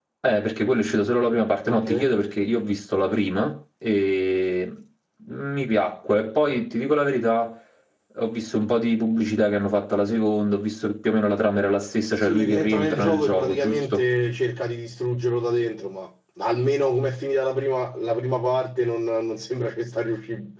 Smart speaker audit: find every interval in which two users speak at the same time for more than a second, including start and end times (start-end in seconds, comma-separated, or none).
12.2-14.0